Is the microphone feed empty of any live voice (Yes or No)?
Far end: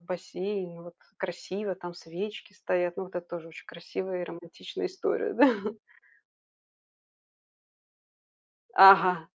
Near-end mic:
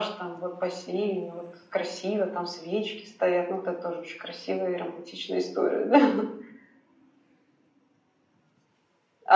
Yes